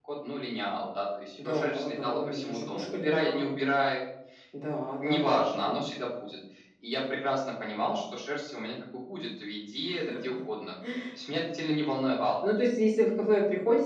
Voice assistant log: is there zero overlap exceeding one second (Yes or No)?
No